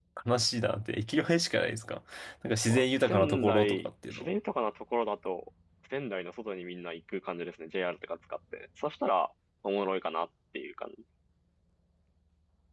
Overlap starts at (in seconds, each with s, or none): 2.6 s